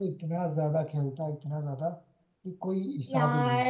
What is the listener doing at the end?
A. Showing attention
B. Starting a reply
B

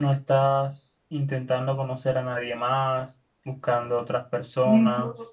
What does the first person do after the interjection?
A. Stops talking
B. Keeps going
A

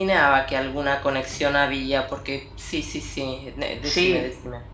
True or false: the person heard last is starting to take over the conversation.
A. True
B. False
A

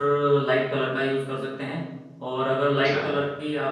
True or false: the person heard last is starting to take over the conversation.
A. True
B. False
B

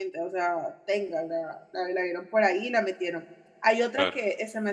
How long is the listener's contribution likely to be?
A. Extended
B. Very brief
B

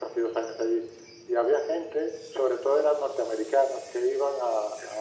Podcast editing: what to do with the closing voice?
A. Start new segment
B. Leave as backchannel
B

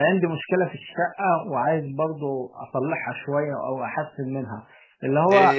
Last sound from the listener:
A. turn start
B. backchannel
B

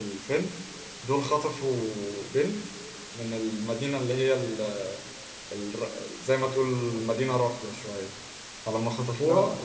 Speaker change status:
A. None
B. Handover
A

